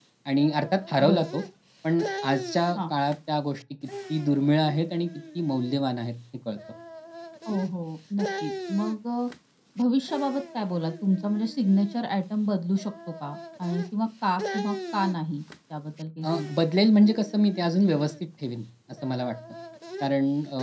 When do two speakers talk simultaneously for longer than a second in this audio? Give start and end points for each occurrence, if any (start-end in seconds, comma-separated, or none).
none